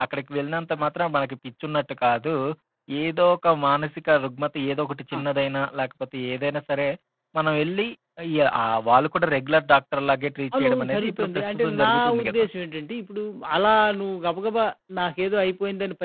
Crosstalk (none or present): present